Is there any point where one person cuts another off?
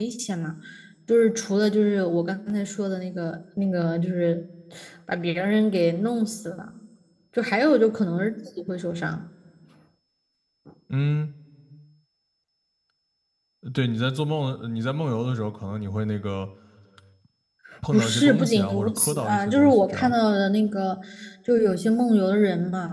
Yes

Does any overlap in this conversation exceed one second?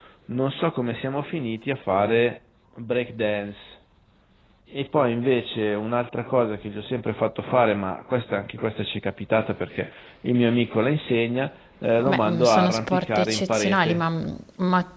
Yes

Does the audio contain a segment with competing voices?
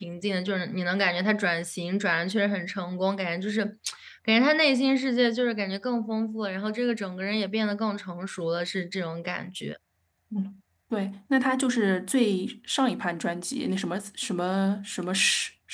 No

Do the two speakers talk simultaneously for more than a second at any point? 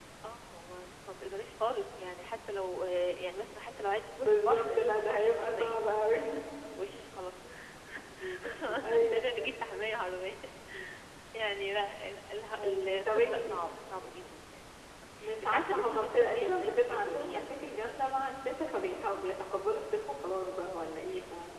Yes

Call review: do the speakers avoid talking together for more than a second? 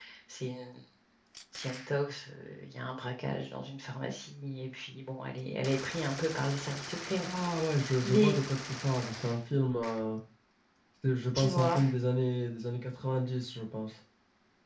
Yes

